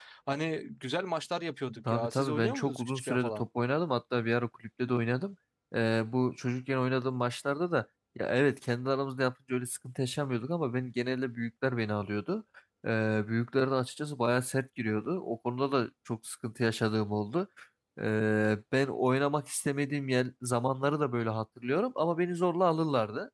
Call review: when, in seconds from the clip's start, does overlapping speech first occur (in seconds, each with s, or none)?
1.9 s